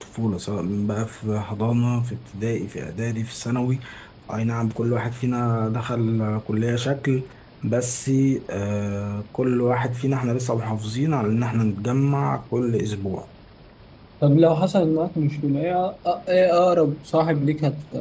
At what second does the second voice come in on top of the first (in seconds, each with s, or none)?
none